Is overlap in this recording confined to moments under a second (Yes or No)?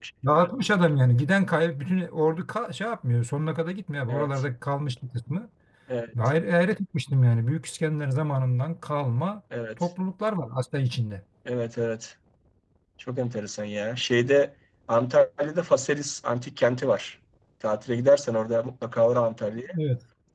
Yes